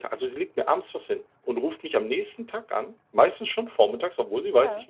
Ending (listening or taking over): listening